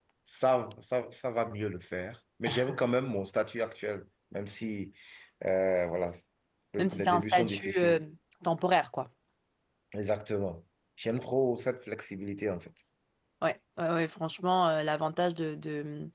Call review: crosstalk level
present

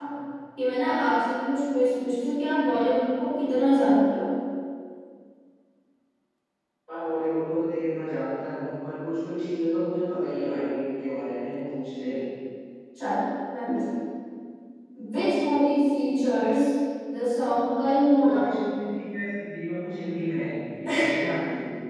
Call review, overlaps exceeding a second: none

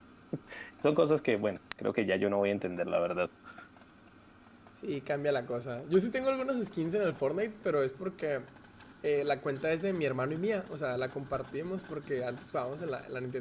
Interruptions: none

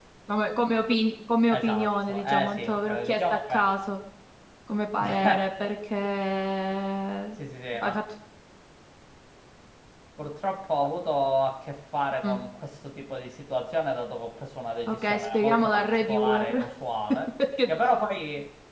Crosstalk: present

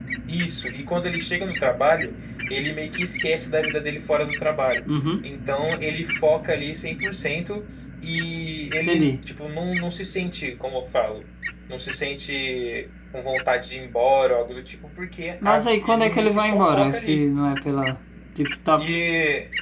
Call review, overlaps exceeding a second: present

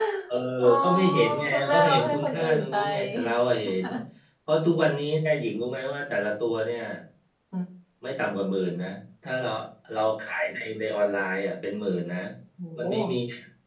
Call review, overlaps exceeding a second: present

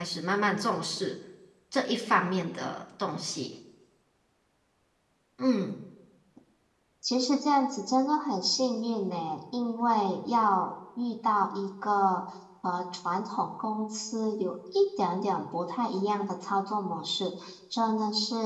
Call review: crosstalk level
none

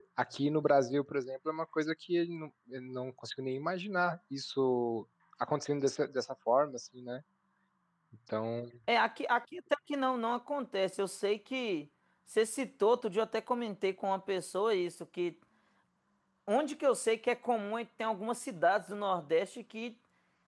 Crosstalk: none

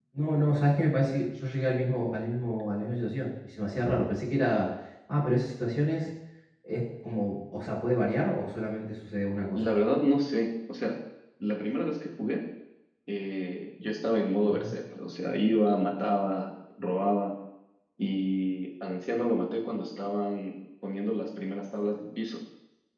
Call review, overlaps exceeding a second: none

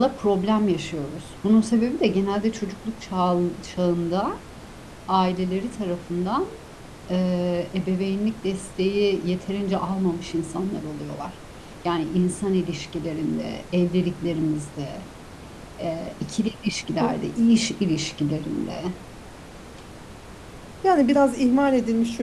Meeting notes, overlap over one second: none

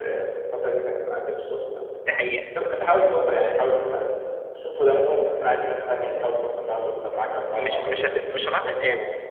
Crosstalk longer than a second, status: present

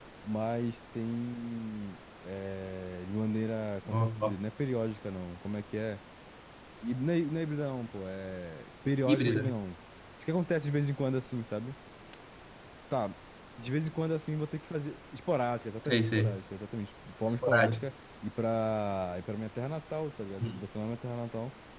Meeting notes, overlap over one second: none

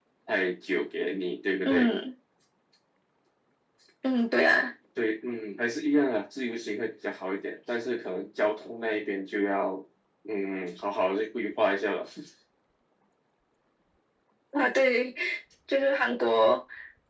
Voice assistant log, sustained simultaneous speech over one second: none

